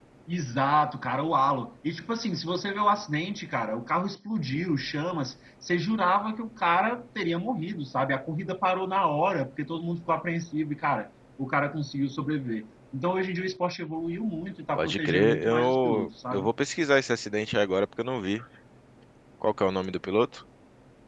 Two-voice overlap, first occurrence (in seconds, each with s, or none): 14.8 s